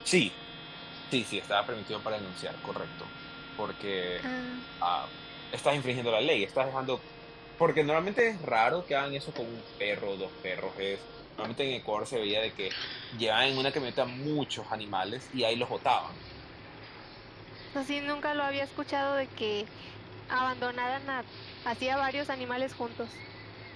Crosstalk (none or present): none